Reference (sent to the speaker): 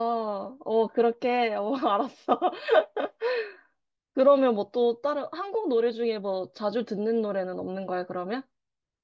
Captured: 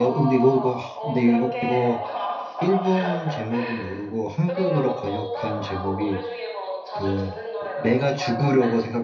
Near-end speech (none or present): present